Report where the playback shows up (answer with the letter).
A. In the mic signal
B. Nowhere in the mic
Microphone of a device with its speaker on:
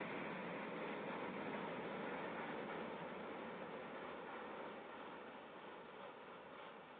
B